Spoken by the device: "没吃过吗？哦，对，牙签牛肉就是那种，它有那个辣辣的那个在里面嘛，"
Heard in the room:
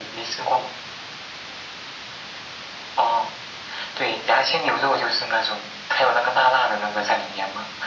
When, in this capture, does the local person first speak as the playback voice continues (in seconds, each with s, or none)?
none